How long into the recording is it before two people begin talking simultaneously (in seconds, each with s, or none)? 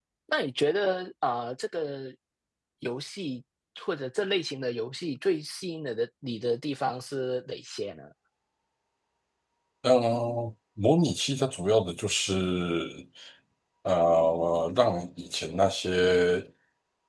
none